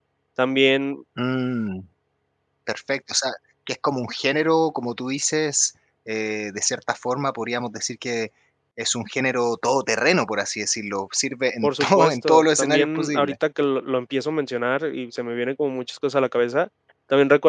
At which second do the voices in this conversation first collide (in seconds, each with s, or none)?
11.6 s